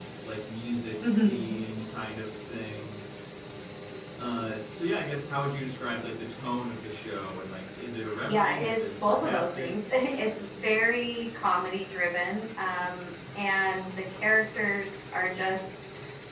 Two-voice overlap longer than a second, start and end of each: 8.3-9.7

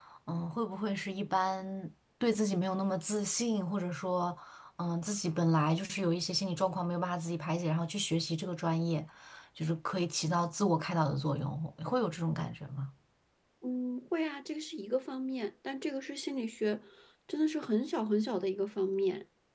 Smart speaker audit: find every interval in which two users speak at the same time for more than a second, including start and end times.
none

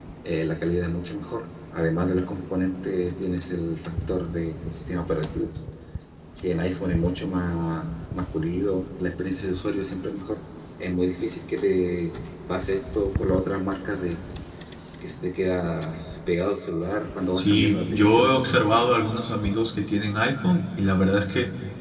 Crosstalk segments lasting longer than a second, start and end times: 17.3-18.6

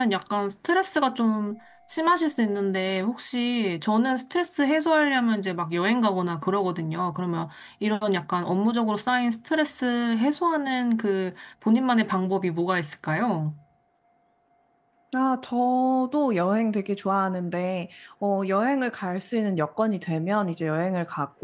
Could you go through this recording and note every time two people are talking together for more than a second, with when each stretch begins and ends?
none

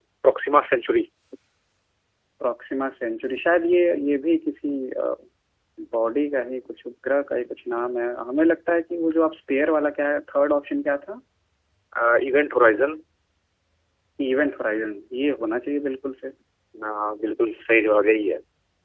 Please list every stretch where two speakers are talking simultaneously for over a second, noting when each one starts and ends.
none

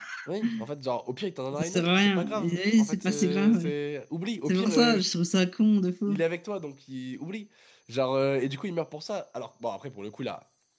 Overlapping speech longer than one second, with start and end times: 1.5-3.7

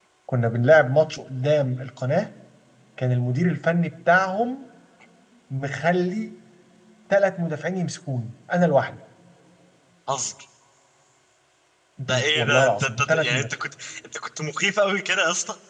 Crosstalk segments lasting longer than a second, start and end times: 12.1-13.5

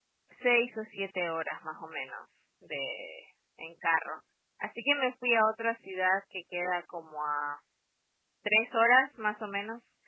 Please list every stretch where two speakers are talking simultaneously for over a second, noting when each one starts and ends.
none

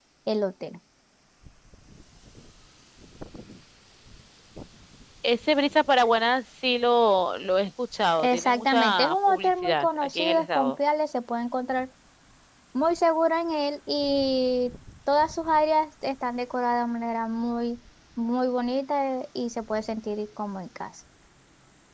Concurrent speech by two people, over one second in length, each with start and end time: 8.2-10.8

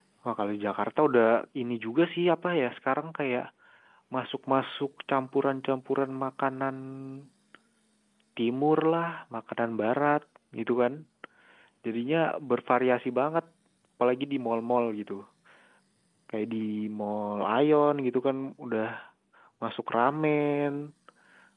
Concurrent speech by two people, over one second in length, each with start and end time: none

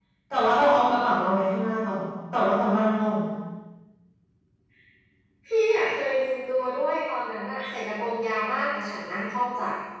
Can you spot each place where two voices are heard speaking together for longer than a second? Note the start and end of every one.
none

